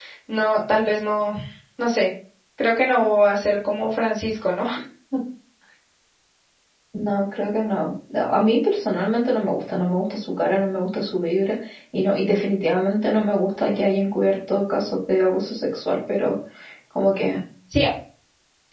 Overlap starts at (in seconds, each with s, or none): none